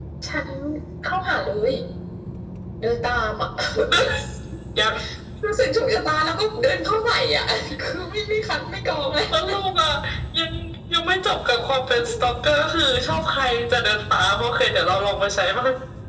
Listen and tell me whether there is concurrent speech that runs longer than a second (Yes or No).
No